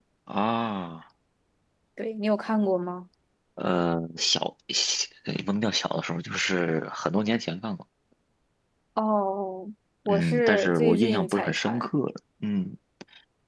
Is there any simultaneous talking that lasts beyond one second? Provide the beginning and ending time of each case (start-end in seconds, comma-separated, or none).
10.1-11.9